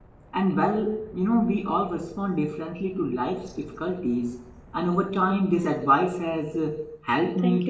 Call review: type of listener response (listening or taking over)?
listening